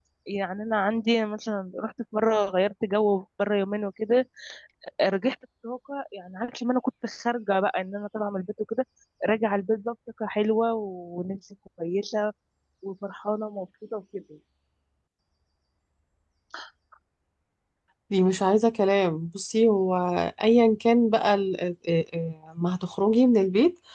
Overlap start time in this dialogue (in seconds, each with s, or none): none